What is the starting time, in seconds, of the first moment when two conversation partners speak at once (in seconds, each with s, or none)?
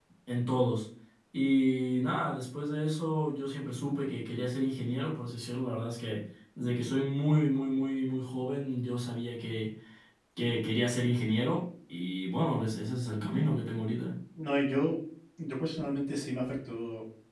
none